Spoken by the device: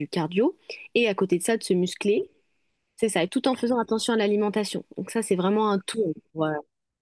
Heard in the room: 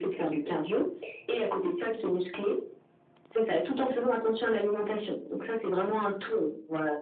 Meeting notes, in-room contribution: none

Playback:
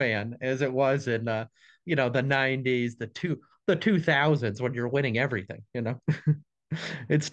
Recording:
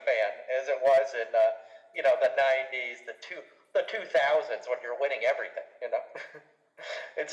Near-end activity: none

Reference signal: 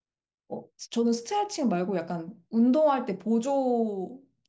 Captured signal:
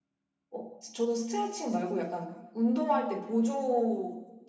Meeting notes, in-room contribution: none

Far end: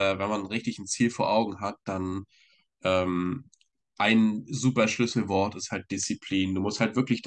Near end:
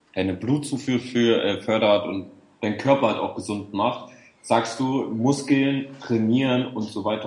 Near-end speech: present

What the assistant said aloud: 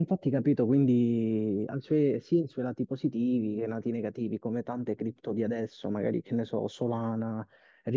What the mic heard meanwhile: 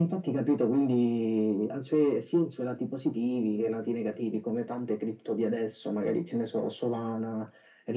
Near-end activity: none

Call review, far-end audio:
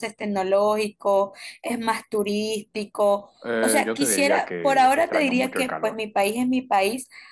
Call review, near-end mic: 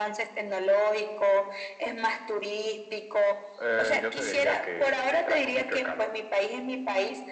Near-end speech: none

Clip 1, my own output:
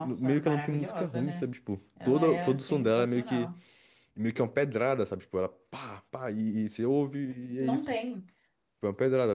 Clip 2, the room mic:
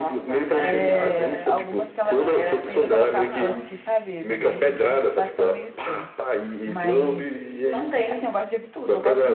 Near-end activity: present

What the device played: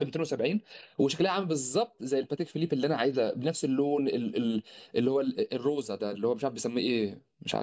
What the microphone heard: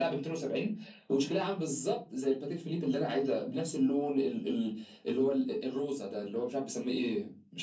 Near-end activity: none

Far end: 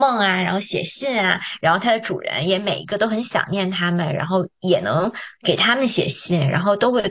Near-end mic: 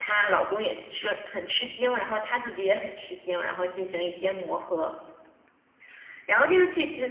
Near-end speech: present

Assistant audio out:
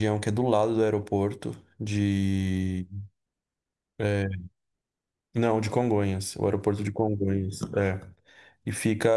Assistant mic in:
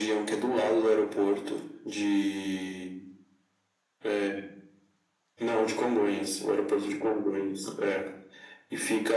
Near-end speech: none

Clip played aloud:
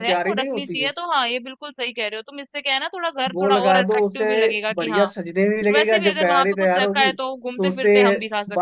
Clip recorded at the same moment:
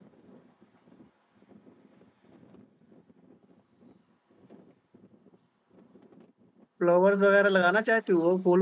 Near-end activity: present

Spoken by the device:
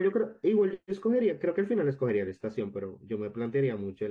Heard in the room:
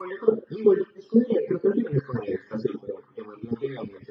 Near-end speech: none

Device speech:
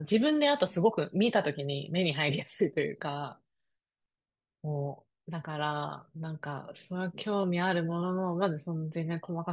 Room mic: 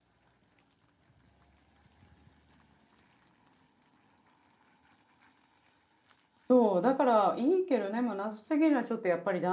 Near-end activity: present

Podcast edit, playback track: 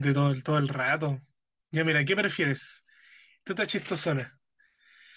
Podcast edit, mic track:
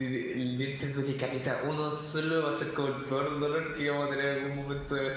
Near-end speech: present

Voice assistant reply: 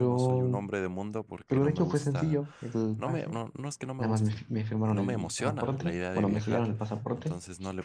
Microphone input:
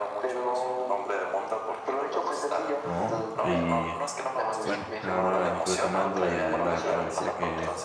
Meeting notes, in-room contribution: present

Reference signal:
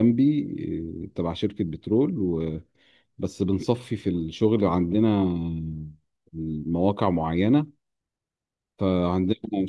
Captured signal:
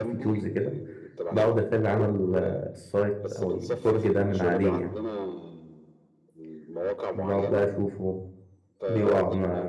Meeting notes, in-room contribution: present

